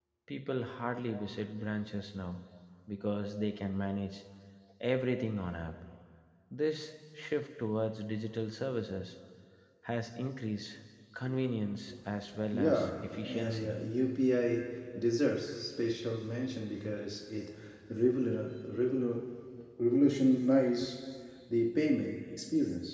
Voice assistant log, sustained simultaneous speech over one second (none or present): present